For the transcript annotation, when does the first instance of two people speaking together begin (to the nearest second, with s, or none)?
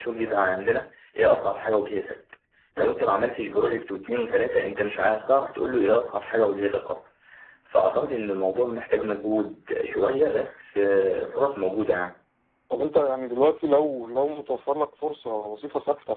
none